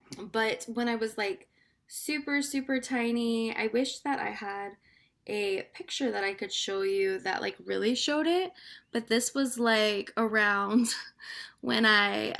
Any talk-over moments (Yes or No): No